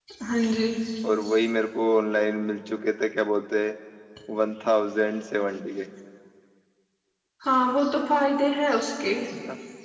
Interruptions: none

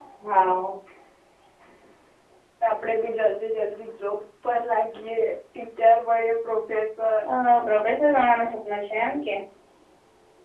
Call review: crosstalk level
none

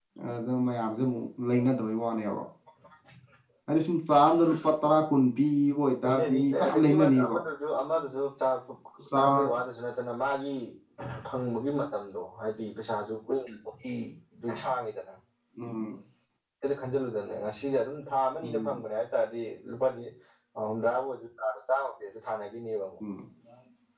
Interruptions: present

